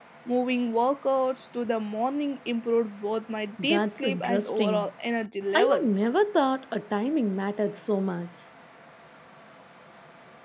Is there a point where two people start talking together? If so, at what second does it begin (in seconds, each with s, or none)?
3.6 s